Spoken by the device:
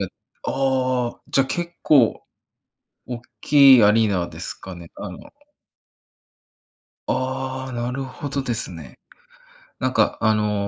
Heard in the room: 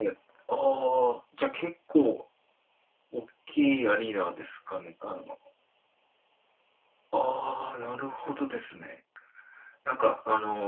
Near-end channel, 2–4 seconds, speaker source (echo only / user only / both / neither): echo only